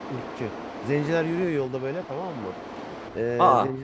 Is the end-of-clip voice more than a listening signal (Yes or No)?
No